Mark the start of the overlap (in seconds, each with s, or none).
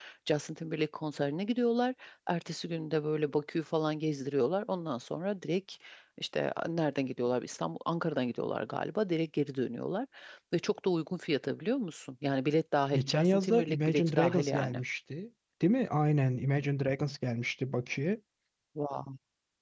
12.9 s